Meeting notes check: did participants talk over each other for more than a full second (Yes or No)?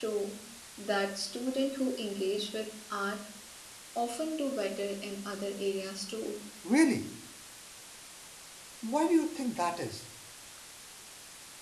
No